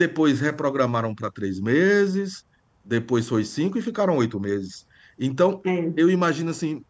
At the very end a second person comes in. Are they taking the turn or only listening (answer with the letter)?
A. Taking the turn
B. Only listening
B